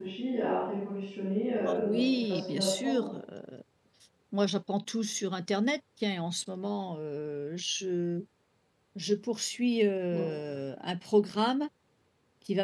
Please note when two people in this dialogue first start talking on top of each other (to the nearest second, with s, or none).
2 s